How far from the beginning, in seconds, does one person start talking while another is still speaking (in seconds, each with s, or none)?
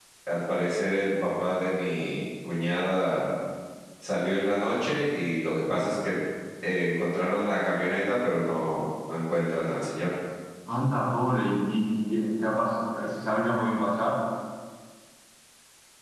none